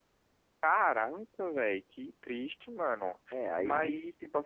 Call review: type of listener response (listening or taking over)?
taking over